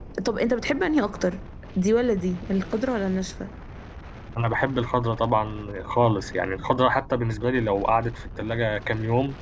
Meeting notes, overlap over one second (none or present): none